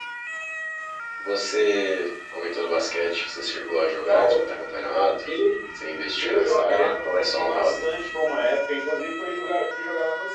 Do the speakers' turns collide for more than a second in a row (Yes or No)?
Yes